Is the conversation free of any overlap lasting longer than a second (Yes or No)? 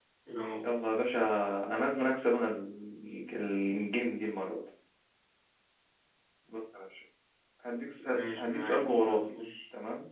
No